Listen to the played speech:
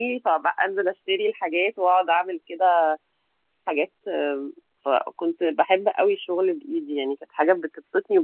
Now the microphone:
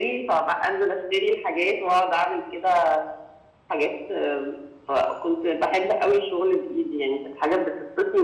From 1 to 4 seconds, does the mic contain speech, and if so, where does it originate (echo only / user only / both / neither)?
echo only